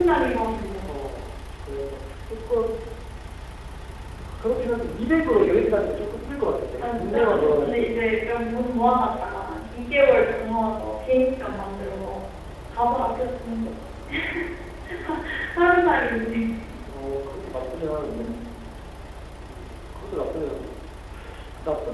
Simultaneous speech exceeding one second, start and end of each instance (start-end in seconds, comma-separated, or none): 6.8-8.2